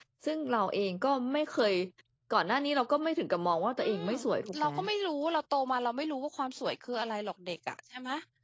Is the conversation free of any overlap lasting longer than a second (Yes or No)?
Yes